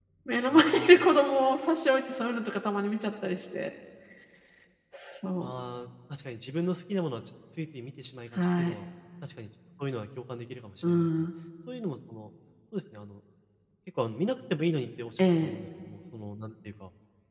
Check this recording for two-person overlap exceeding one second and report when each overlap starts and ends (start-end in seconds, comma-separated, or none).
none